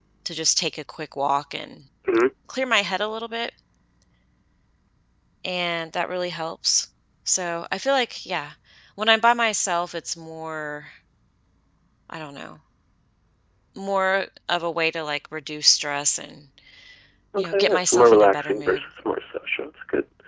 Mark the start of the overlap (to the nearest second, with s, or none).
17 s